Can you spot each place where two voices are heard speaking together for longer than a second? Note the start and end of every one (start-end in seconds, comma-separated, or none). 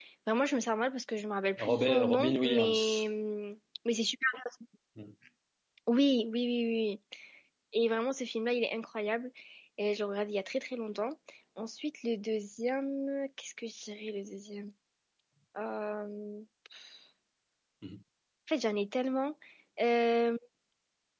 1.6-3.0